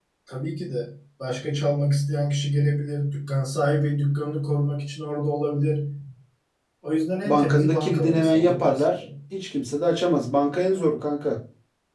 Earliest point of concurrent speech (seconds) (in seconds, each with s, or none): 7.2 s